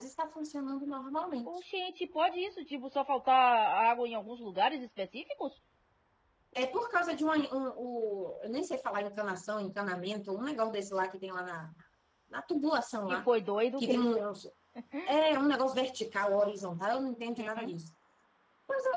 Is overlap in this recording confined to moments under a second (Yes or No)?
Yes